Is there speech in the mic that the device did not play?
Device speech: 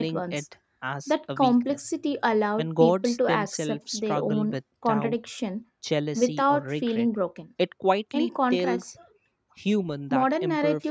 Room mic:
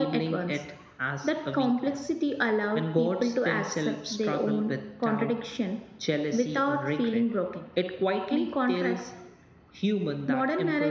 No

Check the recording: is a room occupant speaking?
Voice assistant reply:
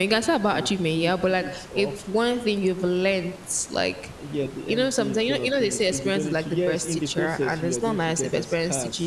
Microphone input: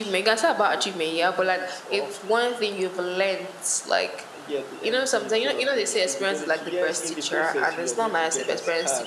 No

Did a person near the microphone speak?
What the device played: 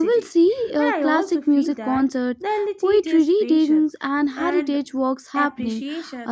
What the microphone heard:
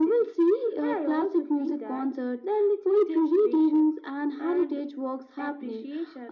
No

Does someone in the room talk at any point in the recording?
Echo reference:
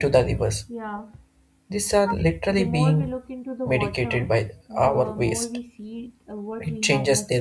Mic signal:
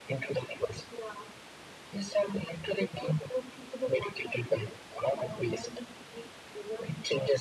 No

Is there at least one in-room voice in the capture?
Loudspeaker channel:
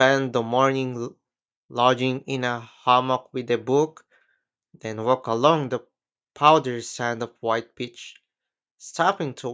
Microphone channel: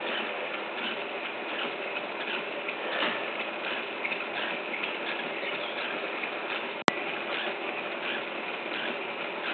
No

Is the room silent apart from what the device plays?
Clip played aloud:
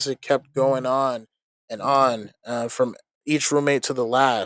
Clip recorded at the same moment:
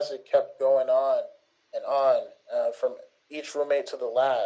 Yes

